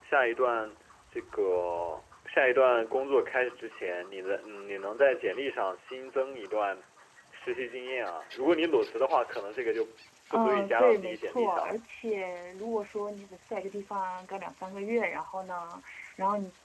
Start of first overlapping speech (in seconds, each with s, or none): 10.3 s